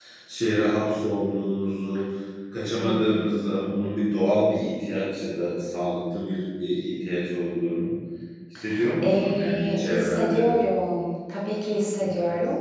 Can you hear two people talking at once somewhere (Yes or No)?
Yes